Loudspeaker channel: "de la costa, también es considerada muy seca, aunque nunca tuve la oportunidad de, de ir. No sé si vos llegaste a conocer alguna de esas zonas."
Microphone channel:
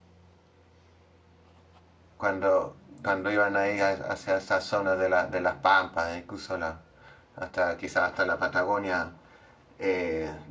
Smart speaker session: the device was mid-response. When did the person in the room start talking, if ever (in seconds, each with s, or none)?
2.2 s